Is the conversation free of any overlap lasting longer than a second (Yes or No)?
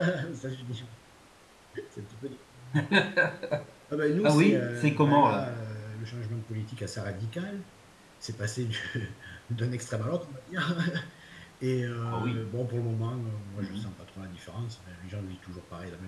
No